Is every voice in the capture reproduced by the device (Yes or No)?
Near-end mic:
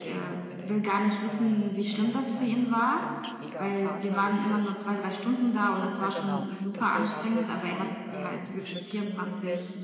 No